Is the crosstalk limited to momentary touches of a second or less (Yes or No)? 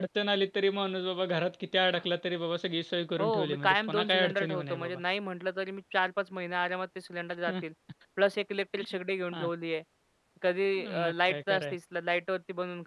No